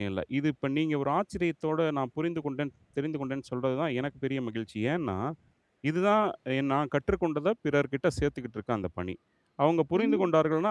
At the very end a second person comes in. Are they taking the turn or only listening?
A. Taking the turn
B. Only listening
B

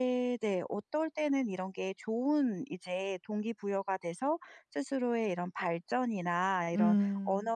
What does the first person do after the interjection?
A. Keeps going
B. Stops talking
A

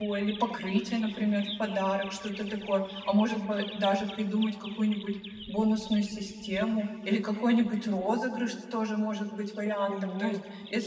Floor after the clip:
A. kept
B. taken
A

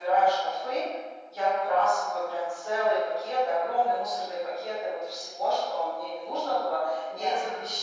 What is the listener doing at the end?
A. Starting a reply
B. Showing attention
B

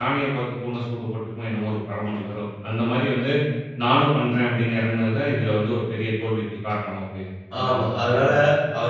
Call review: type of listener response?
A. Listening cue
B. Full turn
B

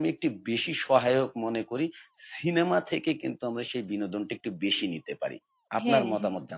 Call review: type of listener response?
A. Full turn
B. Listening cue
A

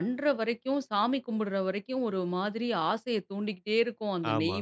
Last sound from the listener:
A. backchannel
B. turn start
A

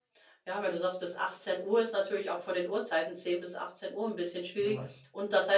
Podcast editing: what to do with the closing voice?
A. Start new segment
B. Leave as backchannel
B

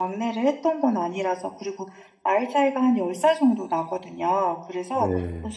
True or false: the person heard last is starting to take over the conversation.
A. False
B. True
A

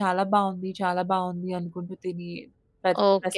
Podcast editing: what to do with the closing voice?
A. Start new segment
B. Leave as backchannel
A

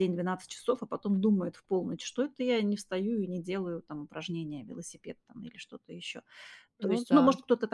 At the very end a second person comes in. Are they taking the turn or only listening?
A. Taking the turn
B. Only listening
B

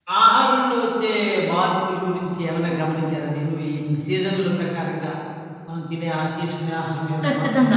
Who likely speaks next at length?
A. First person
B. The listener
B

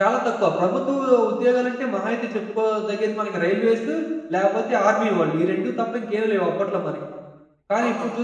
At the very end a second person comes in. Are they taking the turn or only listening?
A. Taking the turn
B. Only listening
B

